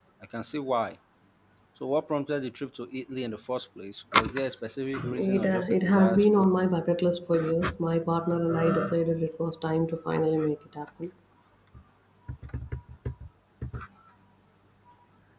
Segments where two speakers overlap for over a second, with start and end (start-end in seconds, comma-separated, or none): 5.2-6.4